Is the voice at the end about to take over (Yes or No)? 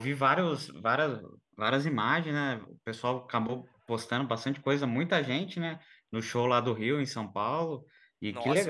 Yes